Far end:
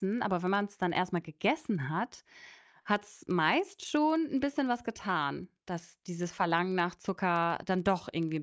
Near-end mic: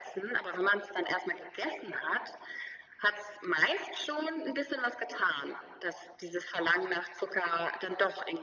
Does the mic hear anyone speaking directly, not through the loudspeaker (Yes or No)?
No